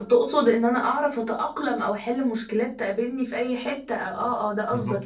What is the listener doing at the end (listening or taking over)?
taking over